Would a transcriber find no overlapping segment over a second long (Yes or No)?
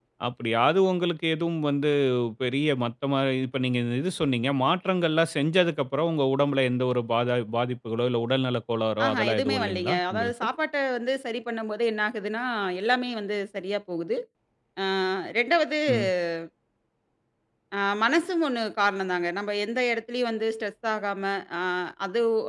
No